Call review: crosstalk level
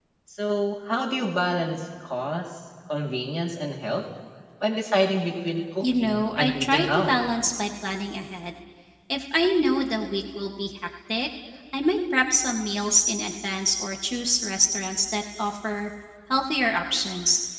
present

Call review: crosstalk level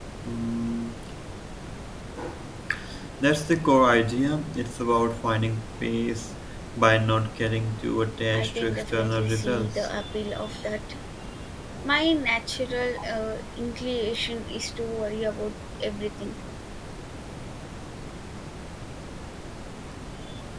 present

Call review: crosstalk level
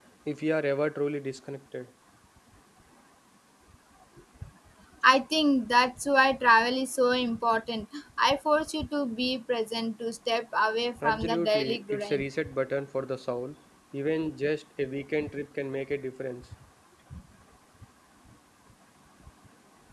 present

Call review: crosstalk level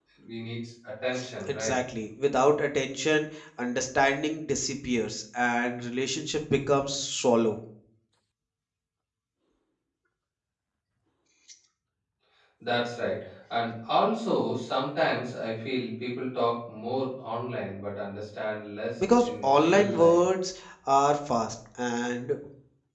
present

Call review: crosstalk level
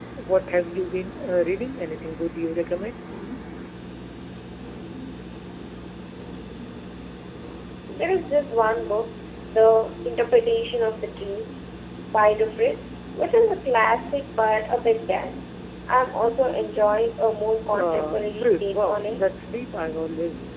present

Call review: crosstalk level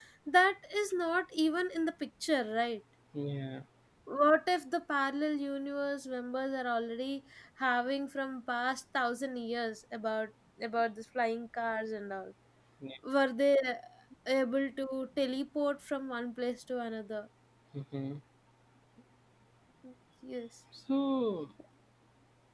none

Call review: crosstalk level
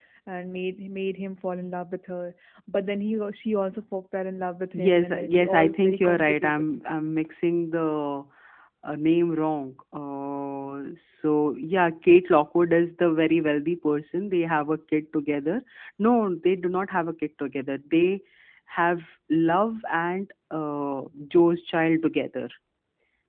present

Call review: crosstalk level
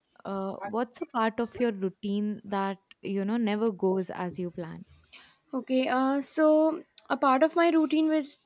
none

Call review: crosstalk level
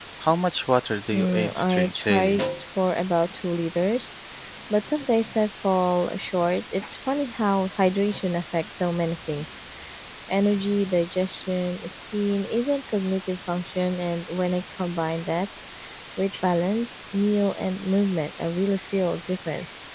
present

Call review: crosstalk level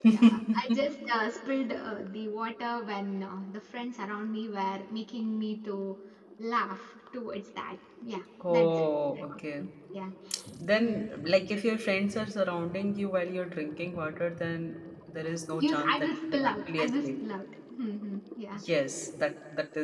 present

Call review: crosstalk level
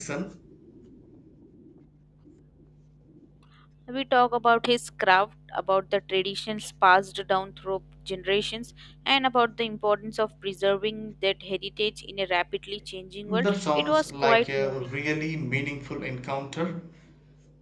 present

